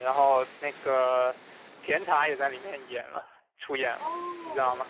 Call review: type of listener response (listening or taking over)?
taking over